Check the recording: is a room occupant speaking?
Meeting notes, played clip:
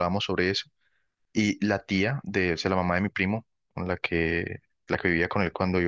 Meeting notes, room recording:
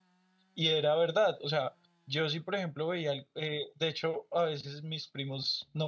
Yes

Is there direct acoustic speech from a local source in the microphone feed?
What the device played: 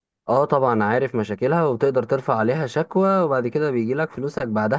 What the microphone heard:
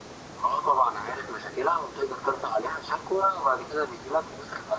No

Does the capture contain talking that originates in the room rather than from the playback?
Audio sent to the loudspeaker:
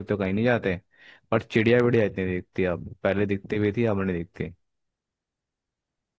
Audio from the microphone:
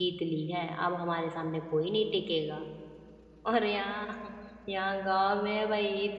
Yes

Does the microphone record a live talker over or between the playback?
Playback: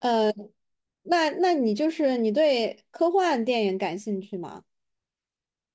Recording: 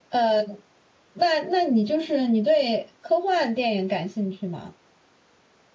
No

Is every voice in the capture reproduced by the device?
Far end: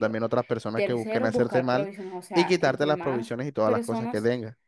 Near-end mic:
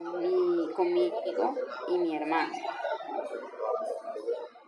No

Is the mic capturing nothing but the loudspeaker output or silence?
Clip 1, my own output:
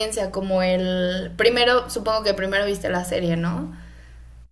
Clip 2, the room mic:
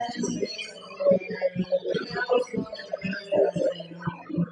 Yes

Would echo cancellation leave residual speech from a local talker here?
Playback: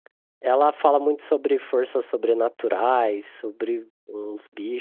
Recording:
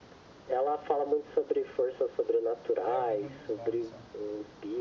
Yes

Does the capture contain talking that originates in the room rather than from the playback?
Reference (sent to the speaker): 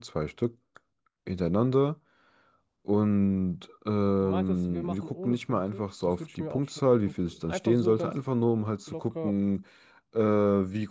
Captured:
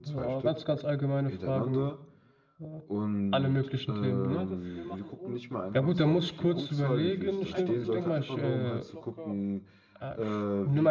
Yes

